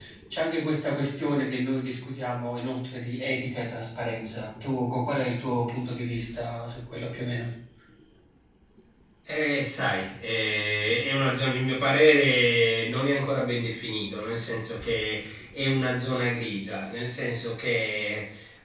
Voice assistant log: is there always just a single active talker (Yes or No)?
Yes